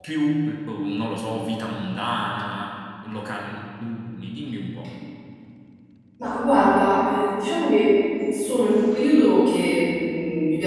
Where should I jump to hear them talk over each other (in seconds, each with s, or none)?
none